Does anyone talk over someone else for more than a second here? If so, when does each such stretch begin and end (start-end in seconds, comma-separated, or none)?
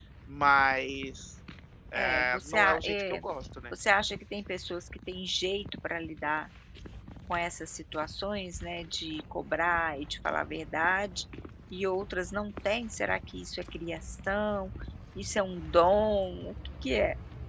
1.9-3.2